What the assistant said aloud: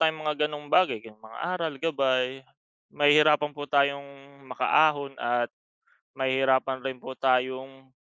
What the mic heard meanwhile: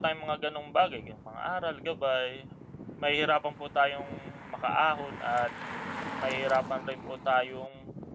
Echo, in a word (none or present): present